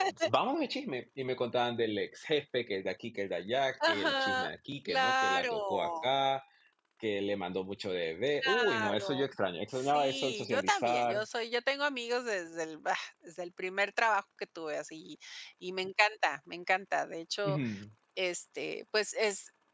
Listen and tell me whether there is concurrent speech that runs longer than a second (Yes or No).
Yes